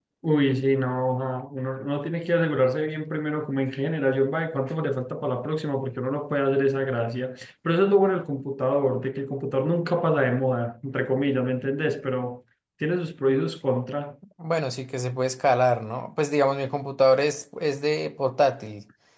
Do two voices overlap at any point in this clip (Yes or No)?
No